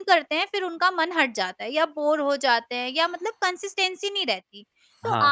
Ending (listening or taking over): listening